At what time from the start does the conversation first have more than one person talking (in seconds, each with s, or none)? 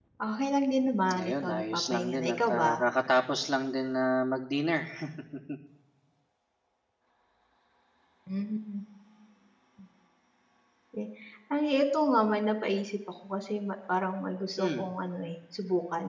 1.1 s